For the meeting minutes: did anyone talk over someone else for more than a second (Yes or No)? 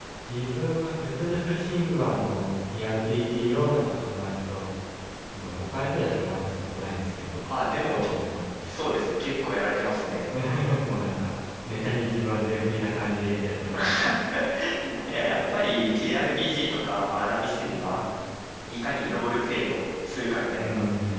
No